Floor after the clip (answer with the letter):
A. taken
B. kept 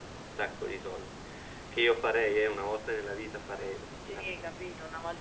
A